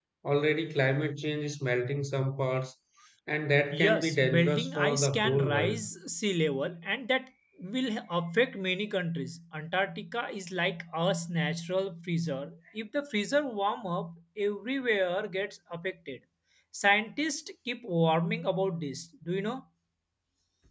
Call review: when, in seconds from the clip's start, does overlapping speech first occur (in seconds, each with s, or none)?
3.8 s